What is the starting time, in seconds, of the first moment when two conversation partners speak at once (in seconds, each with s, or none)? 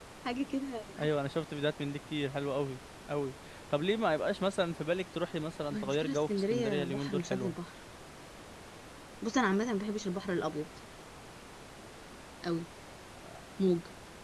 5.7 s